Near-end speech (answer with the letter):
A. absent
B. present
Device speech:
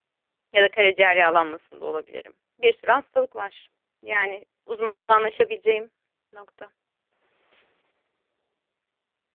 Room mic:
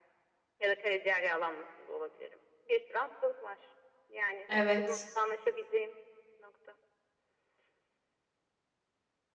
B